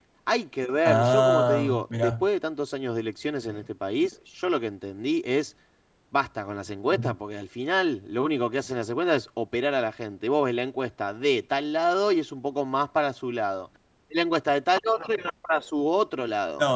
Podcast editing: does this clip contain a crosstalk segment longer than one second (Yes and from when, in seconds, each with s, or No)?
Yes, from 0.8 s